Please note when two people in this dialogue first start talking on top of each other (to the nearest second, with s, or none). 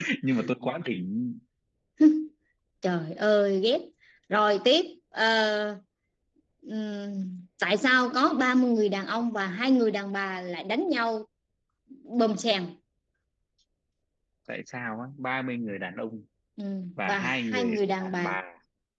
17 s